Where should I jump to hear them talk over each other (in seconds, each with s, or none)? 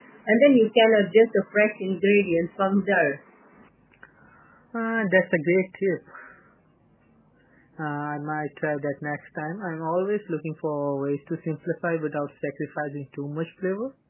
none